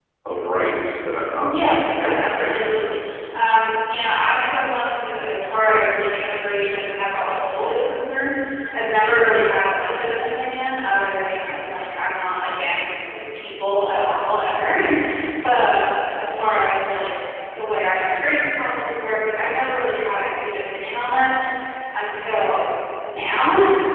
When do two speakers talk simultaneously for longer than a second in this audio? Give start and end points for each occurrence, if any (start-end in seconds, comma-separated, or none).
1.4-2.9